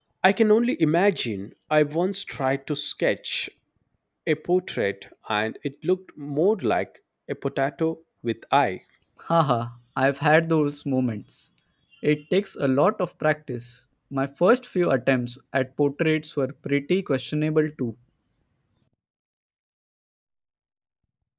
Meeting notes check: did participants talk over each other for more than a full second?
No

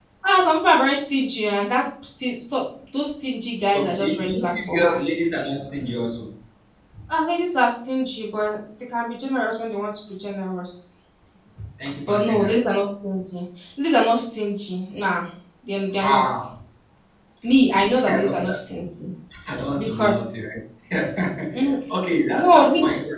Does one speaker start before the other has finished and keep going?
Yes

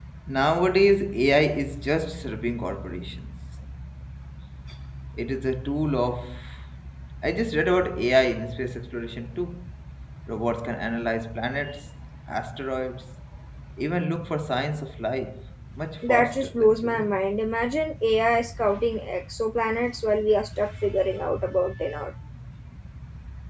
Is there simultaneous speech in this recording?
Yes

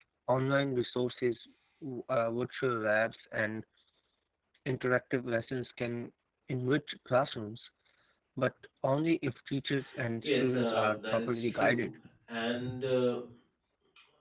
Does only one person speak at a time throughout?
No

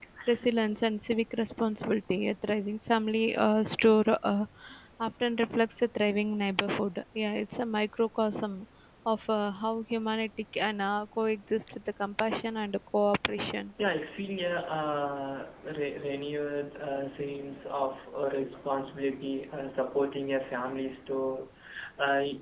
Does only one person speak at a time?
Yes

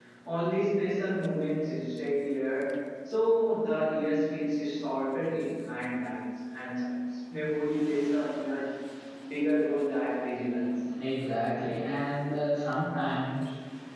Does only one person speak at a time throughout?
Yes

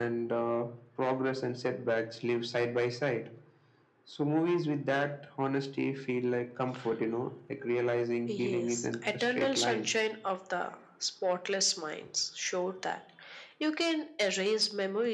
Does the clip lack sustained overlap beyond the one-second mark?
No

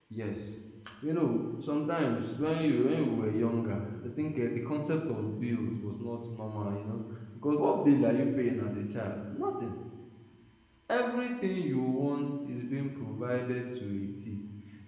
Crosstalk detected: No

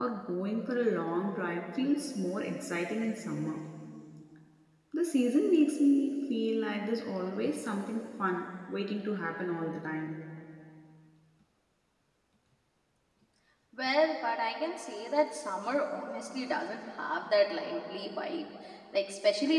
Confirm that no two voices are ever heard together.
Yes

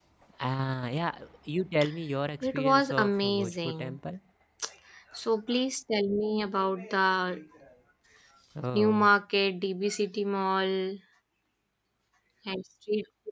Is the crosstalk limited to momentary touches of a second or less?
No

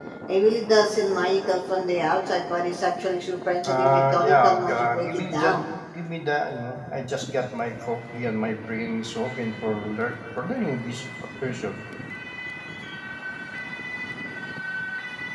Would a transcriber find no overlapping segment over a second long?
No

